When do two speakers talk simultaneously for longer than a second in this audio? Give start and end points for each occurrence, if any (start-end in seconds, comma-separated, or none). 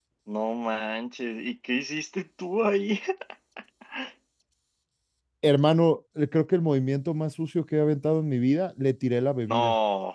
none